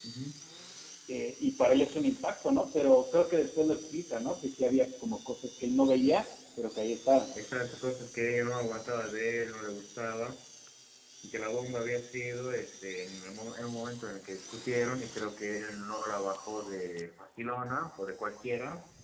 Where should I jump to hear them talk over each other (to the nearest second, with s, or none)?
none